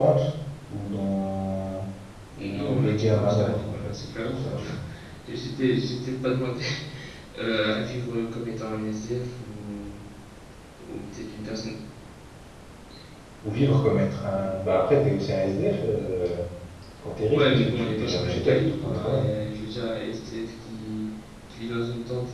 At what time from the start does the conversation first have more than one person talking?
2.5 s

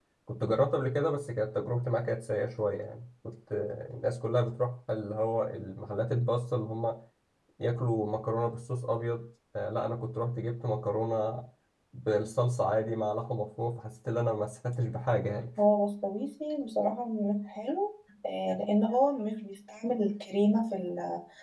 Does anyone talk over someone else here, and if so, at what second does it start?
none

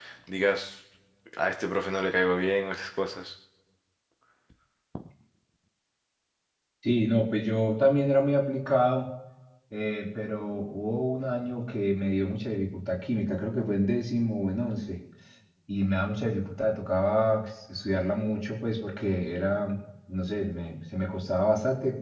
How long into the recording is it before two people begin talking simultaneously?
none

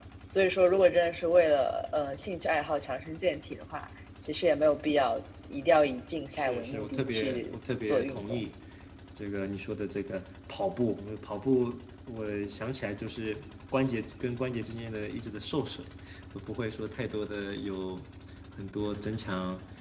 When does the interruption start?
6.3 s

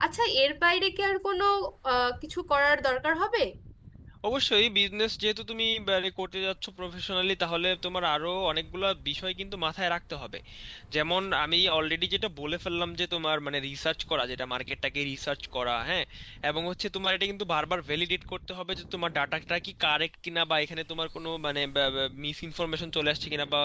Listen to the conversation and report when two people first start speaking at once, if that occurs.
none

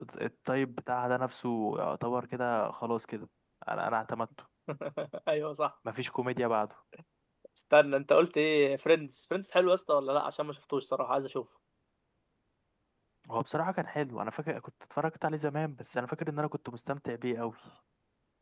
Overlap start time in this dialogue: none

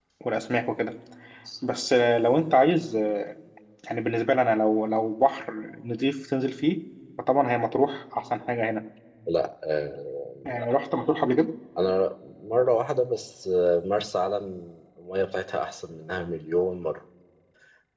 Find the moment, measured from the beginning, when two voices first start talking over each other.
none

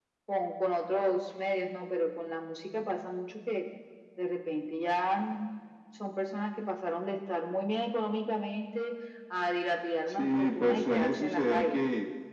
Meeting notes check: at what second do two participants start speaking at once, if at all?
10.1 s

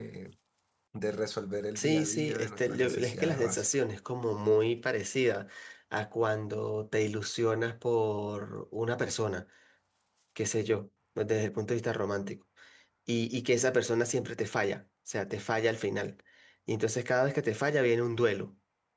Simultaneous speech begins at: 1.8 s

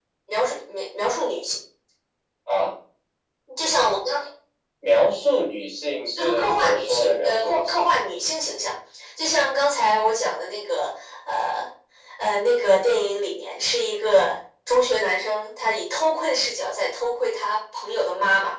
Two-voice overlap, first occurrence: 6.2 s

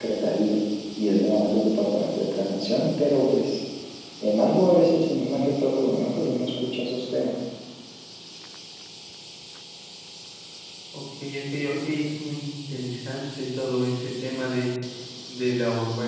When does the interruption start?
none

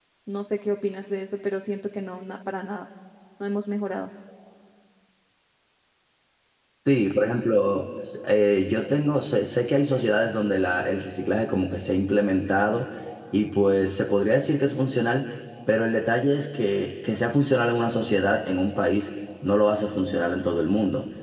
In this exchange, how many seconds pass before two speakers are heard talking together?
none

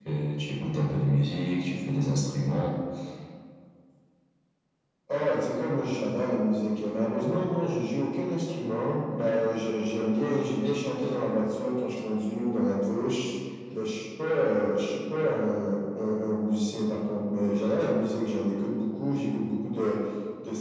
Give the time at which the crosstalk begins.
none

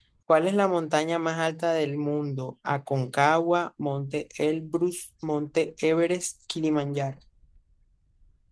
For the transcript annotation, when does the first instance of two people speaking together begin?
none

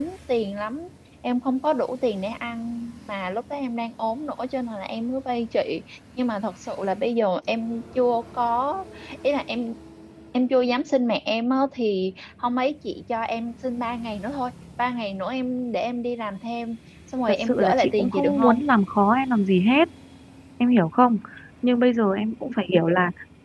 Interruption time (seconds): 17.3 s

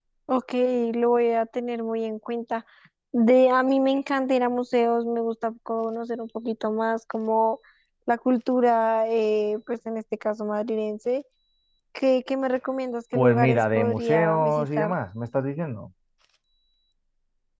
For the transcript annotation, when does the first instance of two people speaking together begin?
13.1 s

